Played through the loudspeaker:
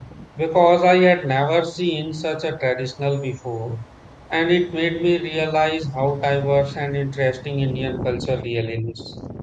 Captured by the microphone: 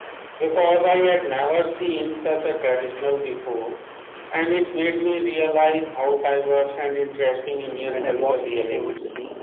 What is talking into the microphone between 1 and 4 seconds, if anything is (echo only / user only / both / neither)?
echo only